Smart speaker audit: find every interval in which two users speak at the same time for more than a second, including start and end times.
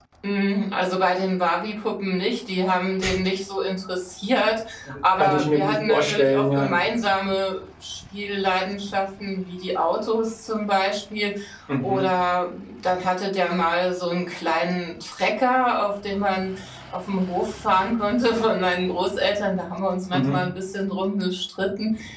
5.2-6.7

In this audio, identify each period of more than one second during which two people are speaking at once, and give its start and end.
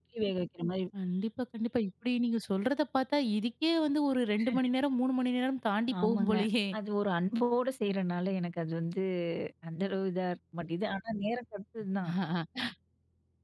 none

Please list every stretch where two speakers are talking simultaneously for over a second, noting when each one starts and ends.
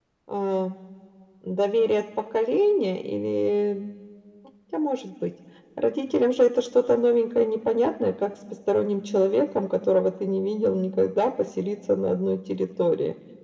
none

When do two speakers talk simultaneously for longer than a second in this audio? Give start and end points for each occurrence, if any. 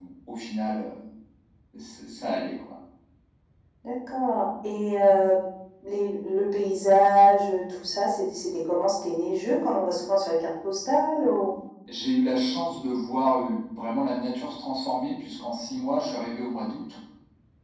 none

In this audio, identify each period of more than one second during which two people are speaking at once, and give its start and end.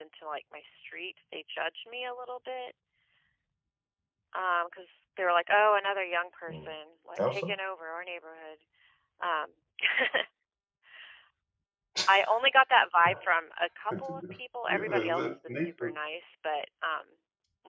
14.7-15.9

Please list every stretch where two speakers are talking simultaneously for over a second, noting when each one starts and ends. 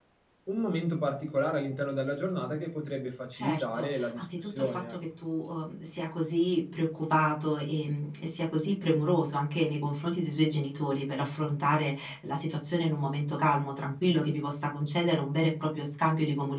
3.3-5.0

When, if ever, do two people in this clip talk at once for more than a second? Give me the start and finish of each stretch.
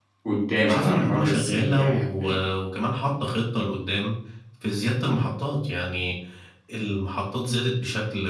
0.6-2.4

